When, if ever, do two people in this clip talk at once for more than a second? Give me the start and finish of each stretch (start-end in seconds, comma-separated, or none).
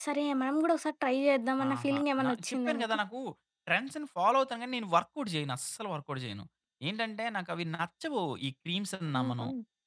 1.7-3.0